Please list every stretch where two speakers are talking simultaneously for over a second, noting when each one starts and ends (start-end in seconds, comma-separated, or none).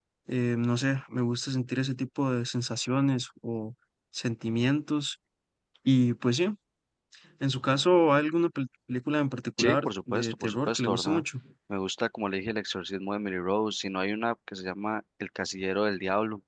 9.6-11.2